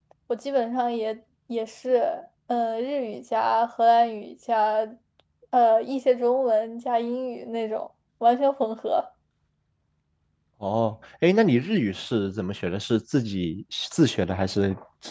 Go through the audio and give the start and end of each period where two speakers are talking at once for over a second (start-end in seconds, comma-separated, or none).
none